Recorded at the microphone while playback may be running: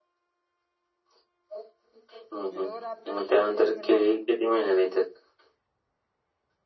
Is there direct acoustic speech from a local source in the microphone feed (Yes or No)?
Yes